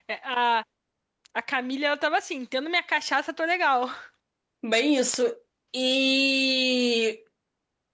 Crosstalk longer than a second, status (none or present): none